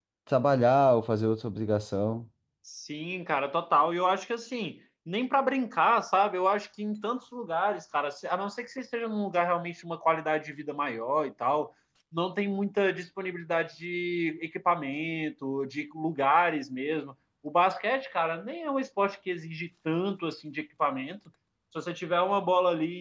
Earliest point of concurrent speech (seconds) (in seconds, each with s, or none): none